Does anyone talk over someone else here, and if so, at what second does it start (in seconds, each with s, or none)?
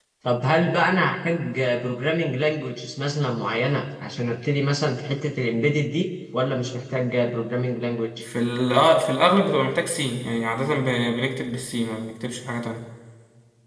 none